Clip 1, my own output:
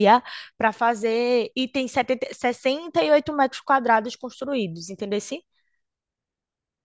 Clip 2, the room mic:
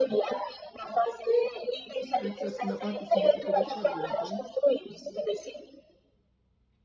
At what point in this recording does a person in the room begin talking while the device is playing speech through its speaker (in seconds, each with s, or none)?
2.2 s